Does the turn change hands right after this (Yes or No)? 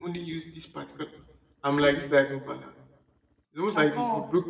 No